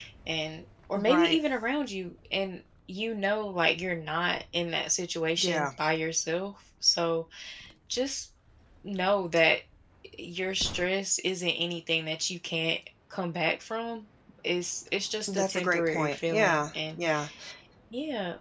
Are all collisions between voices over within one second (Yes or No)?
No